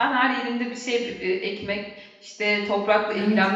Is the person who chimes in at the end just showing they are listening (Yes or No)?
Yes